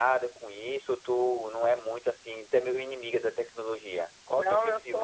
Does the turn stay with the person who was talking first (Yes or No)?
No